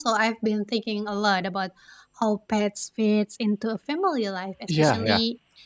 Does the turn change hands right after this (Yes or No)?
No